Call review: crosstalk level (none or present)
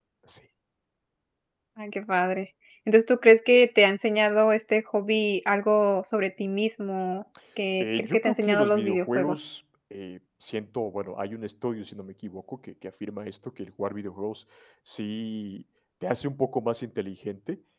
present